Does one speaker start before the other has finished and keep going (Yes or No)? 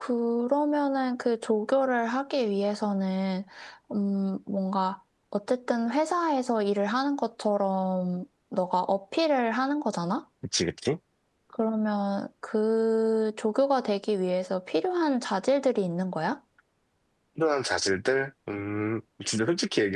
No